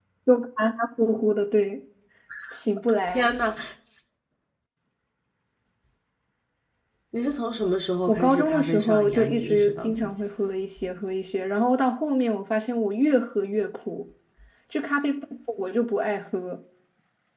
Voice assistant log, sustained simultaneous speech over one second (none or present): present